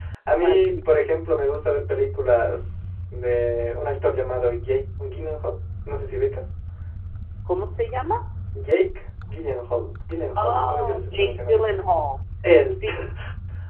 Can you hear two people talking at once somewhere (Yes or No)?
Yes